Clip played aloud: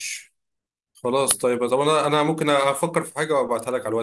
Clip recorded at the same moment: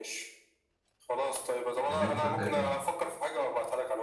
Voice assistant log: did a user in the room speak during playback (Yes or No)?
Yes